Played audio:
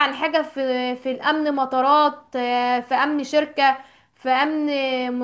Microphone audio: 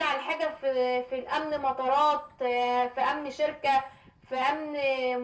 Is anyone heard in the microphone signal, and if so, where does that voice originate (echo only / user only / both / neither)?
echo only